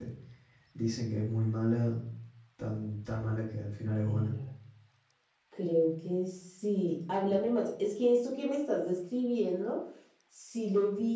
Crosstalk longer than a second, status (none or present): none